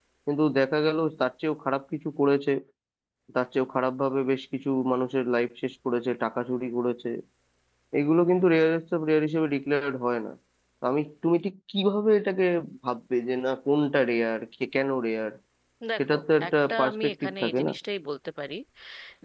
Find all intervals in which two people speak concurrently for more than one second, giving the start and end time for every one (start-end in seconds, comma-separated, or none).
16.5-17.7